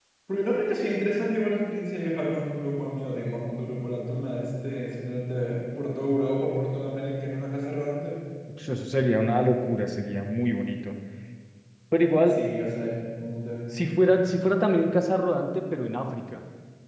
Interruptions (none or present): none